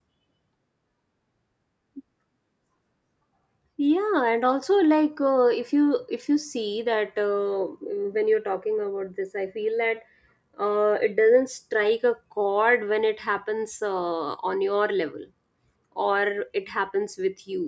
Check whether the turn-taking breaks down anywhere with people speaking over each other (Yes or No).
No